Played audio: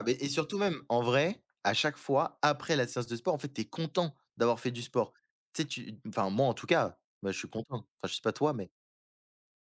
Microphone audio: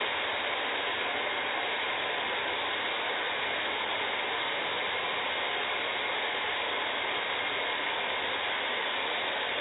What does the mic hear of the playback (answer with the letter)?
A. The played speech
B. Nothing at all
B